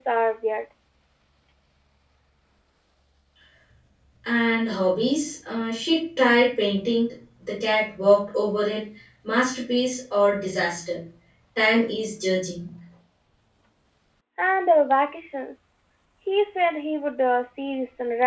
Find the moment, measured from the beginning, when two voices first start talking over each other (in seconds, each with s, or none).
none